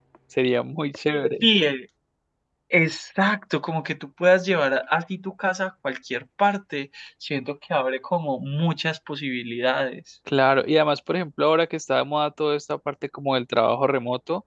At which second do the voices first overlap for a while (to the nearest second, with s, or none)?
none